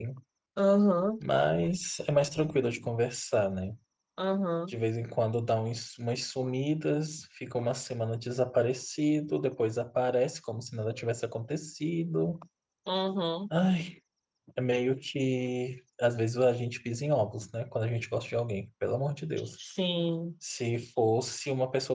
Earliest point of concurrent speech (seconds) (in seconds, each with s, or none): none